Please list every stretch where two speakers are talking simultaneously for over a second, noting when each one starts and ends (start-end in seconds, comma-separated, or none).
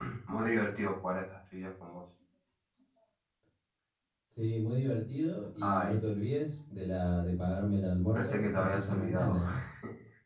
8.1-9.4